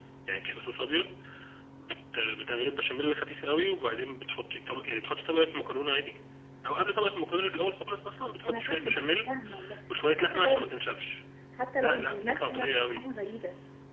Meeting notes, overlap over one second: present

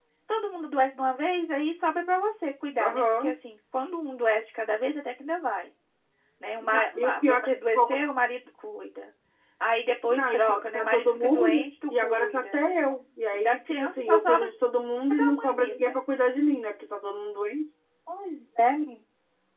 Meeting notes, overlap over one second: present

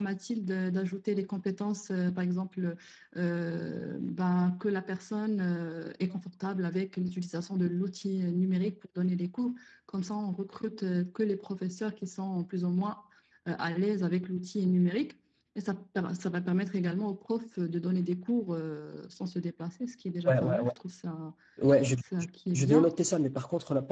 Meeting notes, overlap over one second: none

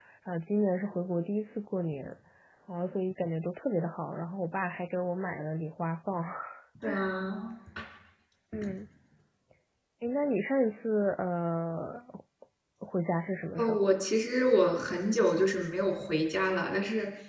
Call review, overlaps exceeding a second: none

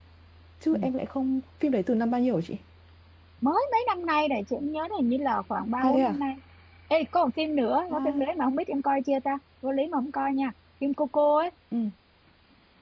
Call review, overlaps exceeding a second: none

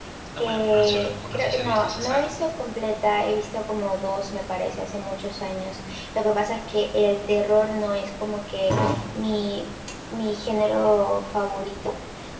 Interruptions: present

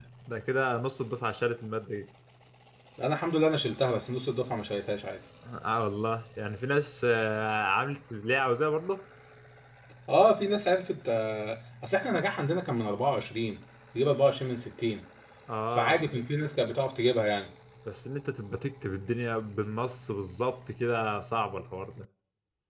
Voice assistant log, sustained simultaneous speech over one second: none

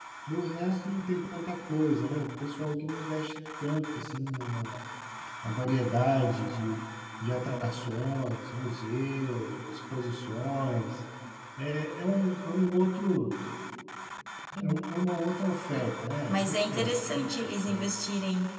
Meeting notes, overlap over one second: present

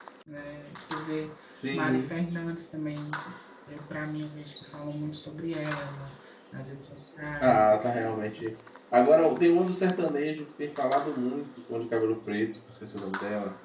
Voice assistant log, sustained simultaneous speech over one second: none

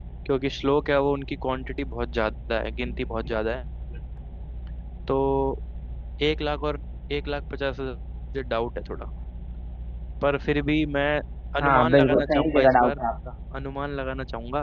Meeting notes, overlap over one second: present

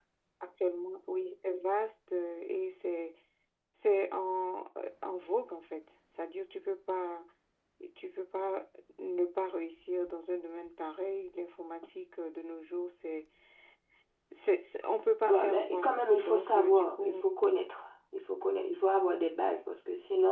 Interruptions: present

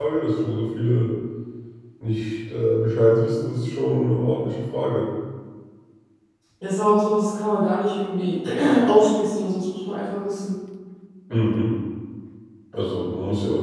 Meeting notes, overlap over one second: none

